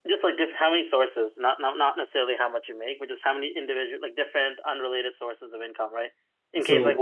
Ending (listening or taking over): listening